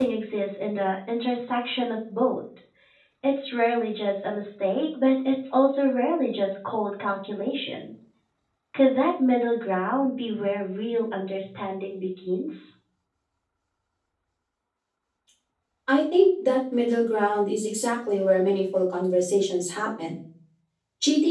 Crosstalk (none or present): none